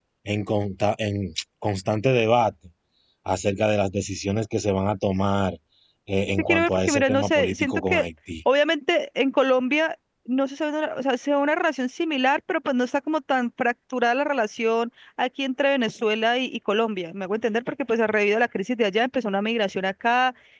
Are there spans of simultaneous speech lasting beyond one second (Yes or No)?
Yes